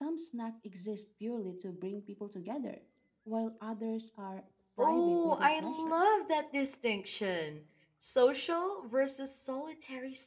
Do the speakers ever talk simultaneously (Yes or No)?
Yes